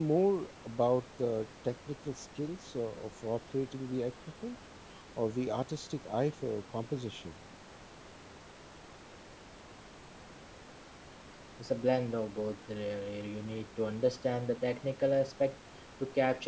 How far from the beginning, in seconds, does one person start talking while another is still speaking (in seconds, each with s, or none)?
none